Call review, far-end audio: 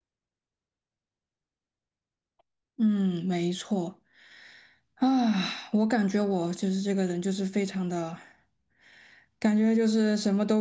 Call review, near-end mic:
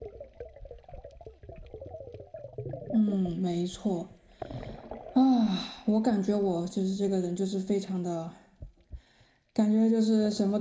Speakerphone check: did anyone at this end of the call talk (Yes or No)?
No